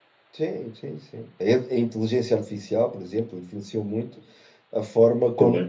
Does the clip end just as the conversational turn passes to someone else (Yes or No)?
No